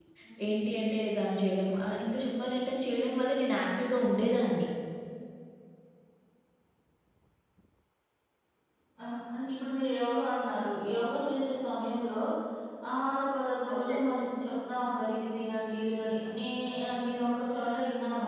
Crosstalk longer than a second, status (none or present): none